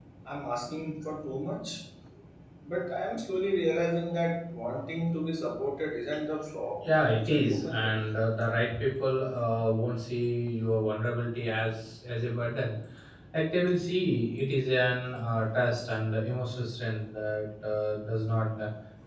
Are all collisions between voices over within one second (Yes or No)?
No